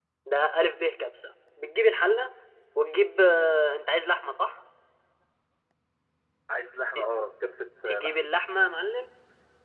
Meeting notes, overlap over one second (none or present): none